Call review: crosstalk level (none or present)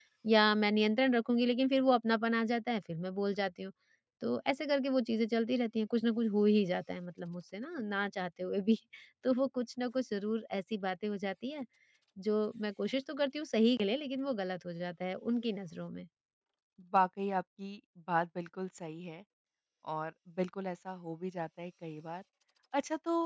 none